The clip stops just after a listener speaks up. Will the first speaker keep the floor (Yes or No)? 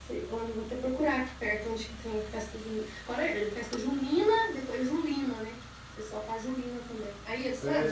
No